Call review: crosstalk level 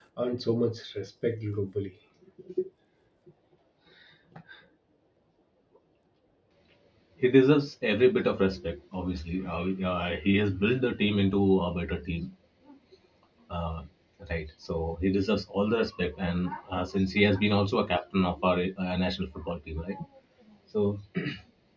none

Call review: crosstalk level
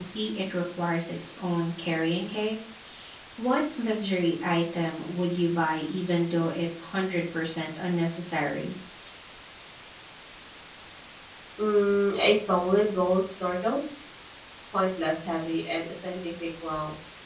none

